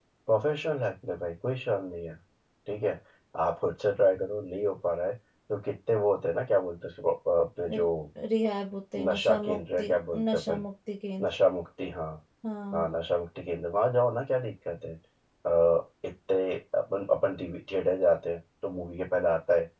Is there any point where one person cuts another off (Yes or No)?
Yes